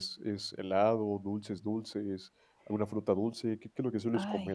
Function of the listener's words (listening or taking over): taking over